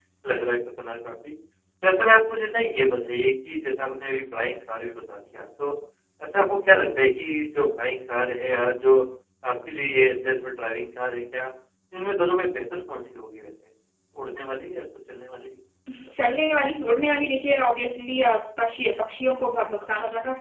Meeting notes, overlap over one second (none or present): none